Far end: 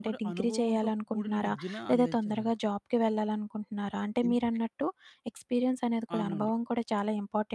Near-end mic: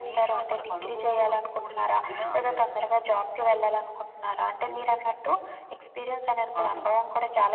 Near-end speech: none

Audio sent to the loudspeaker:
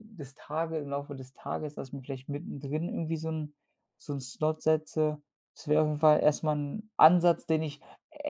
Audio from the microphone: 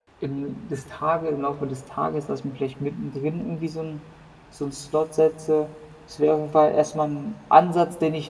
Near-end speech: none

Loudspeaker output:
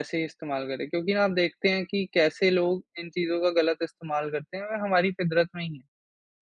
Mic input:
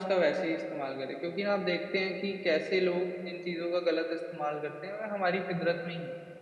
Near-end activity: none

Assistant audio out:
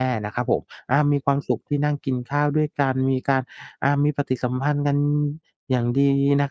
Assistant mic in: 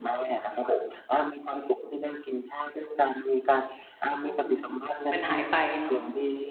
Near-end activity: present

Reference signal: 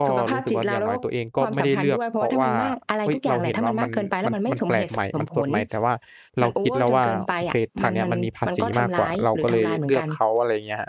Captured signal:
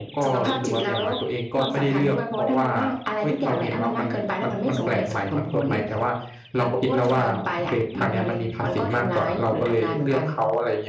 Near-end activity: none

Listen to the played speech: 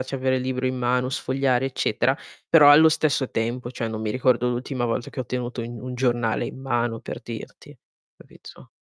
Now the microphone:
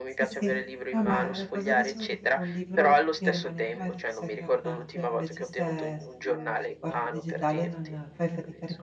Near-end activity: present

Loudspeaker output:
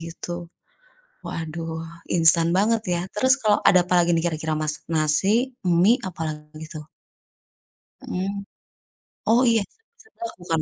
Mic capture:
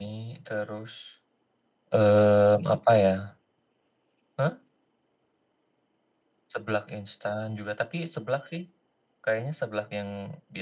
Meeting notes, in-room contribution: present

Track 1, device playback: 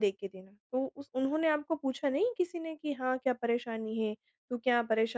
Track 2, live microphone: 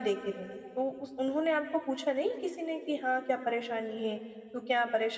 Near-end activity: none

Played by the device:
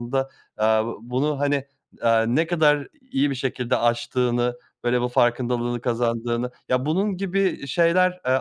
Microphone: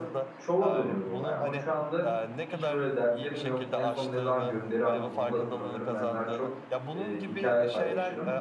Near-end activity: present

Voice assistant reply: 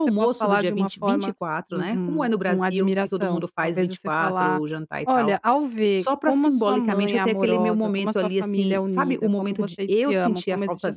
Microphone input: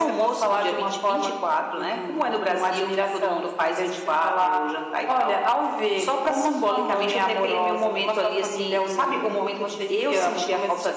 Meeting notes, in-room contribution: none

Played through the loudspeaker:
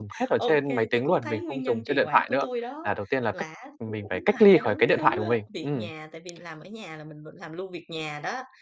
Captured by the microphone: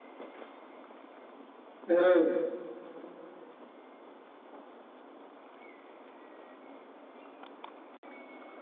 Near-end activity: present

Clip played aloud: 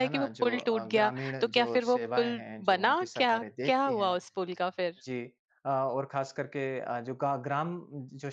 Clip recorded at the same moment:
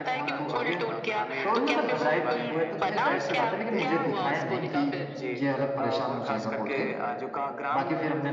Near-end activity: present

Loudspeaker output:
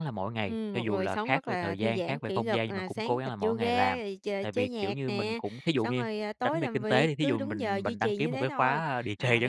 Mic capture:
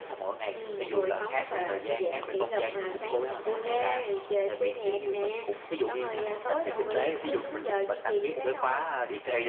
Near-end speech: present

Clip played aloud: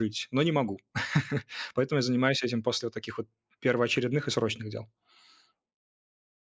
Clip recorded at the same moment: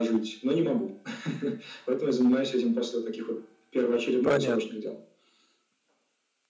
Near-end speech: present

